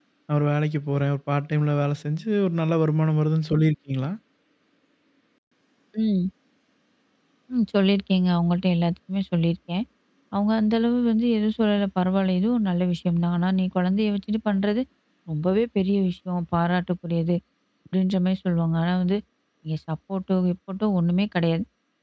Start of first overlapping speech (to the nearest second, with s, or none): none